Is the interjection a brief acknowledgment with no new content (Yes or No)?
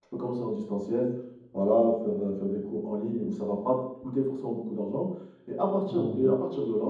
Yes